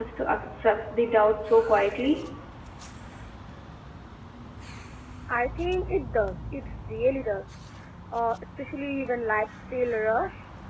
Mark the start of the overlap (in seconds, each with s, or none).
none